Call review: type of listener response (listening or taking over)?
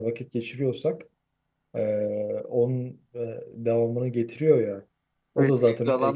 taking over